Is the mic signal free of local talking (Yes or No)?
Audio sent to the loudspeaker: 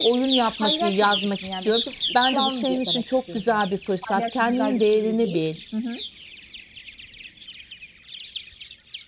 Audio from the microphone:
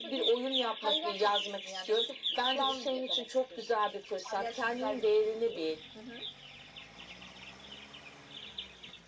Yes